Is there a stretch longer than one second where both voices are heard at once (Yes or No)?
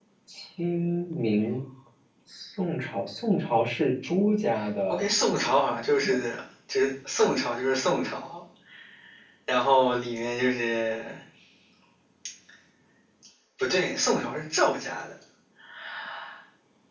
No